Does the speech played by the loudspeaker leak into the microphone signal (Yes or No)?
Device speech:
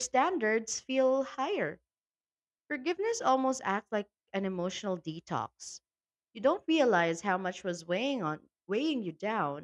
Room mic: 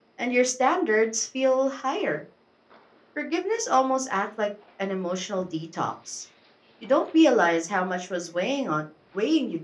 Yes